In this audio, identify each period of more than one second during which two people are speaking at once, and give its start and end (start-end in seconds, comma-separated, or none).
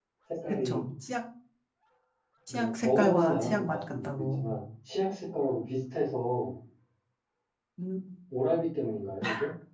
2.5-4.5